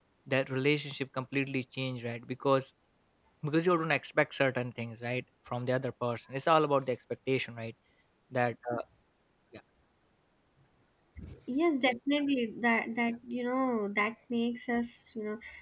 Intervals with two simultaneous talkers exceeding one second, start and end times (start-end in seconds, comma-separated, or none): none